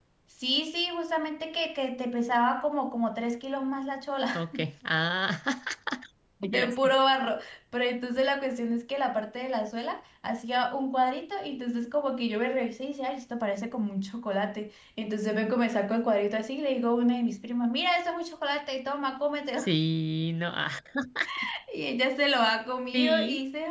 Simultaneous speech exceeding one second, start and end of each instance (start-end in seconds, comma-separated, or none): none